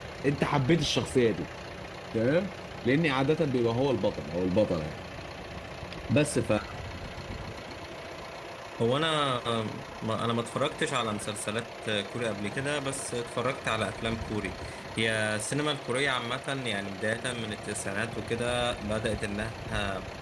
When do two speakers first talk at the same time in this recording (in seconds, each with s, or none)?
none